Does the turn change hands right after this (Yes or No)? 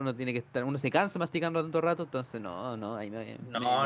Yes